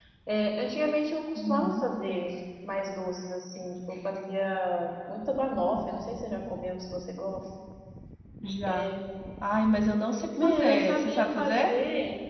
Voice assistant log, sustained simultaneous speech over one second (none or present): present